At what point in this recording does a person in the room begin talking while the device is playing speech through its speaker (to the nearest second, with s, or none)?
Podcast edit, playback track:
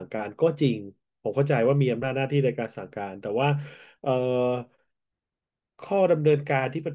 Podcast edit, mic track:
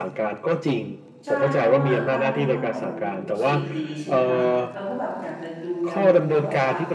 1 s